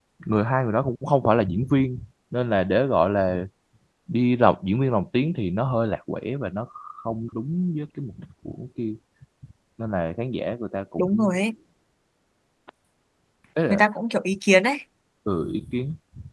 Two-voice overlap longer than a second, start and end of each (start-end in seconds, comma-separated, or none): none